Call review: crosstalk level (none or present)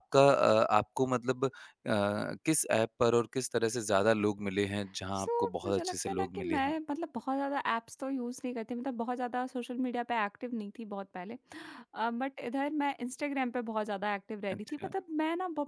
present